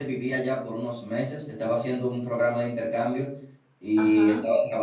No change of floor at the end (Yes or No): Yes